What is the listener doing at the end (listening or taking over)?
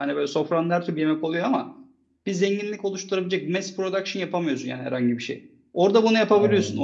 listening